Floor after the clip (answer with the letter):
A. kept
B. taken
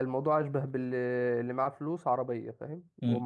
B